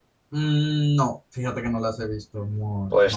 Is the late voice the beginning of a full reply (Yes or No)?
Yes